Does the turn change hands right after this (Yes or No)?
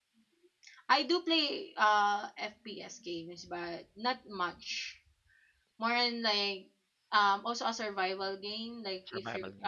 No